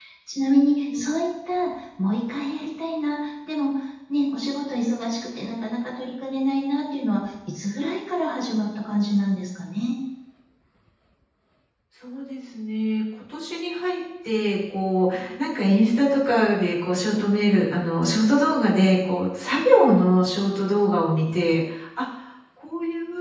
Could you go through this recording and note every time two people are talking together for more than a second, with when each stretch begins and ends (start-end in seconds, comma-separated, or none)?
none